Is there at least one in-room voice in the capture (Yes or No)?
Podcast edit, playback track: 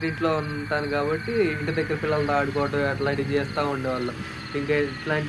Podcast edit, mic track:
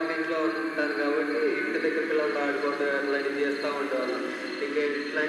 No